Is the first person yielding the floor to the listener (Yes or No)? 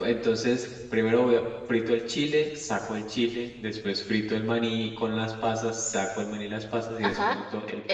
Yes